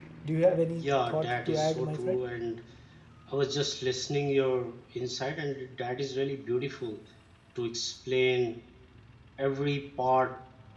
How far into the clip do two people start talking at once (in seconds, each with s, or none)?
0.7 s